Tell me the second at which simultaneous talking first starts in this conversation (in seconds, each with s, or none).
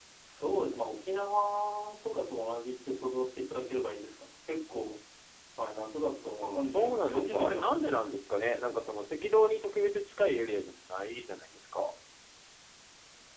6.4 s